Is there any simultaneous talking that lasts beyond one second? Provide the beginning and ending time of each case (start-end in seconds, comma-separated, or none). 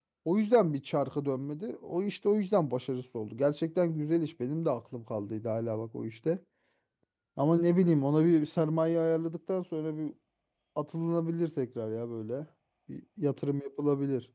none